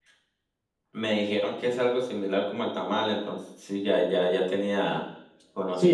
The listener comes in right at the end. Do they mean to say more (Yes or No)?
Yes